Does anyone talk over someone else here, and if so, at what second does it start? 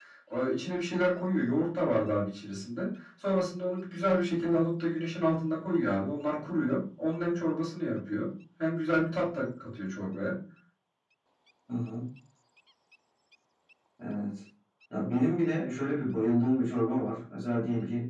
none

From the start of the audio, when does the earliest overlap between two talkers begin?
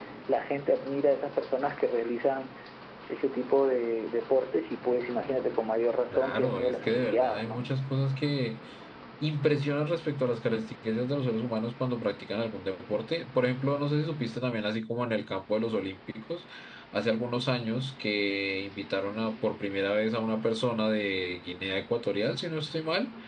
6.1 s

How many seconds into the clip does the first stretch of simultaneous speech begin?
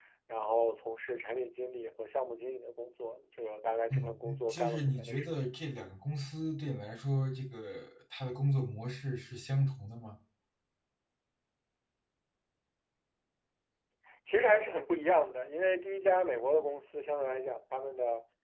3.9 s

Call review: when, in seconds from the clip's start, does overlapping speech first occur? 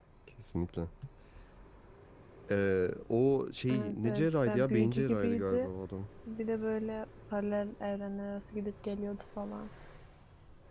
3.7 s

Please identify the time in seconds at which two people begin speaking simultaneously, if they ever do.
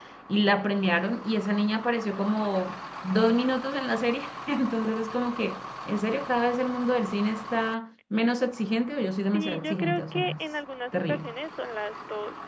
9.1 s

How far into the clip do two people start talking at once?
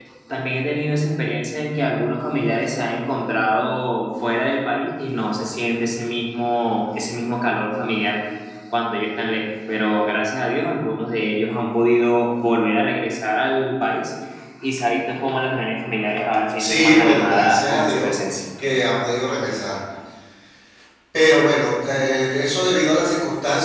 16.6 s

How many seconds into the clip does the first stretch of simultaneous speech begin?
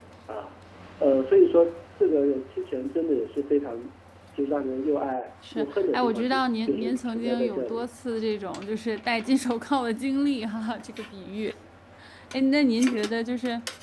5.5 s

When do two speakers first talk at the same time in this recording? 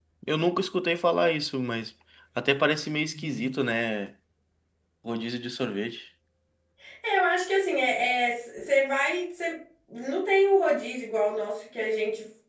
none

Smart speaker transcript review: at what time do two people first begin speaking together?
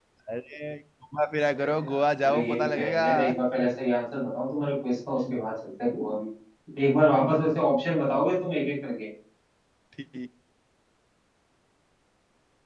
1.4 s

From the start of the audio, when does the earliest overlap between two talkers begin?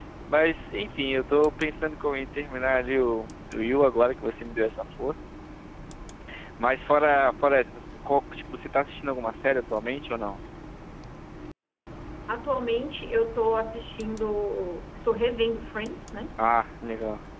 none

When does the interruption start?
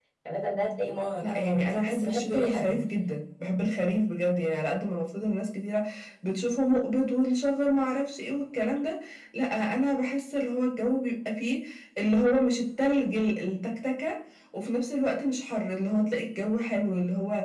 1.2 s

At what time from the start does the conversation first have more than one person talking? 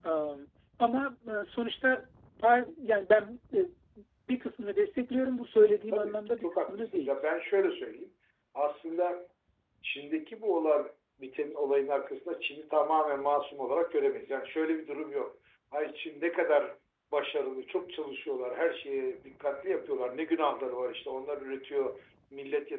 5.9 s

